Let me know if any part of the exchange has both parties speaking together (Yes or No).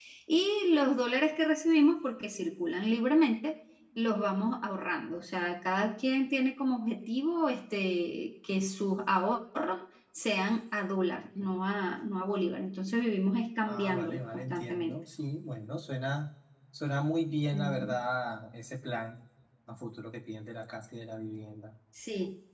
Yes